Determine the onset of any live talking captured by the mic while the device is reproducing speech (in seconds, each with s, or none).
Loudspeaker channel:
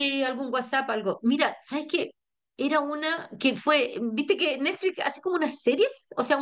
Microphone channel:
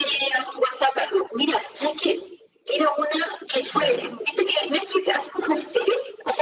3.7 s